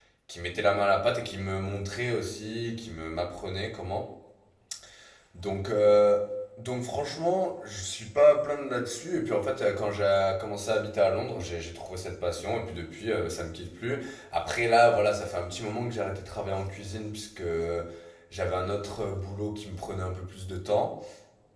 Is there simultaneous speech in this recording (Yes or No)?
No